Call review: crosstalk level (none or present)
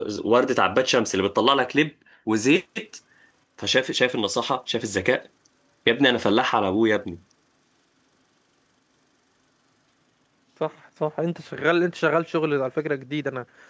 none